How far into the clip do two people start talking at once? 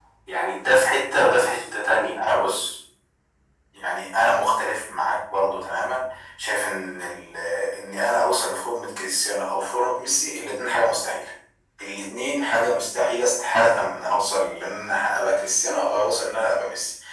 none

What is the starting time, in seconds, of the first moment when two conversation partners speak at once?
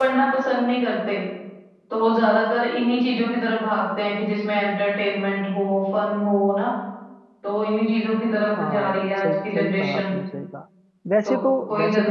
8.5 s

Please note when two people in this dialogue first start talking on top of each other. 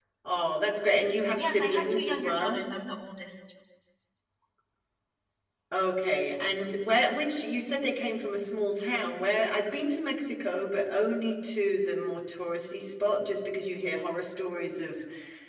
1.3 s

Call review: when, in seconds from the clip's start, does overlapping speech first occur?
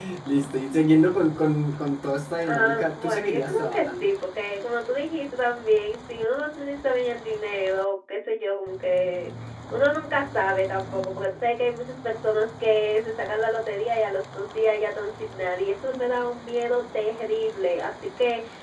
2.4 s

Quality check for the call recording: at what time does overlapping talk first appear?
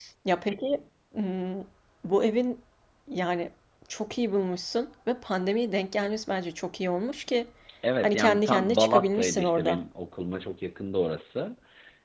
8.0 s

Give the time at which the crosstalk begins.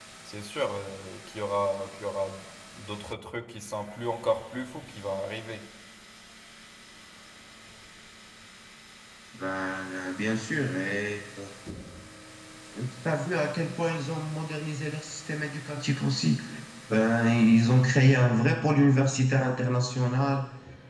none

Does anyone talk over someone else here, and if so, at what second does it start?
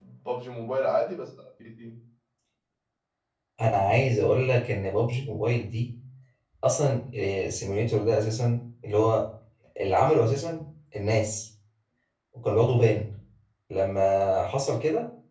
none

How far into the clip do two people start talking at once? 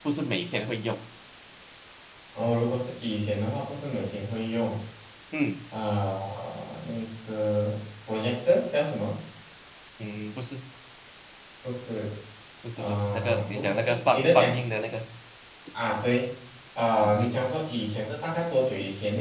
12.8 s

